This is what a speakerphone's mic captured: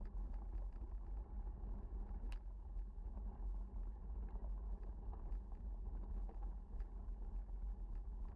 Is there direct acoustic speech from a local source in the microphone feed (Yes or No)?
No